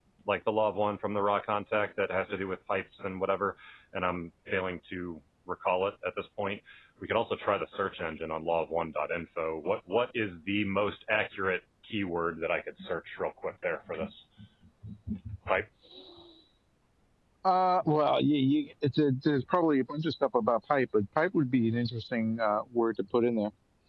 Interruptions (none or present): none